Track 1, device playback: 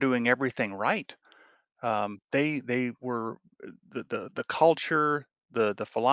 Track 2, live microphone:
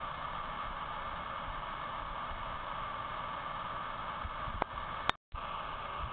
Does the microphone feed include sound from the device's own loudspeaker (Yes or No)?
No